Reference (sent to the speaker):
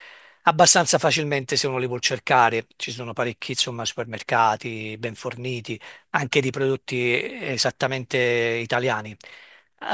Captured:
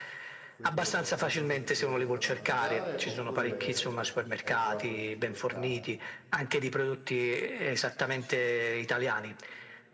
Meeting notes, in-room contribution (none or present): present